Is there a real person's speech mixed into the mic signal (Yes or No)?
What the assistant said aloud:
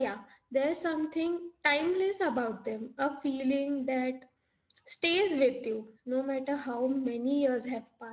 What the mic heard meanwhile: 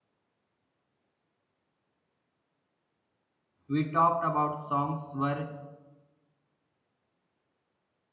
Yes